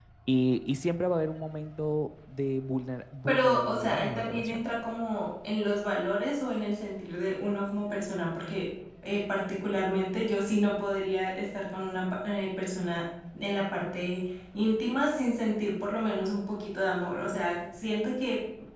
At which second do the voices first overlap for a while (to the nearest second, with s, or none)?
3 s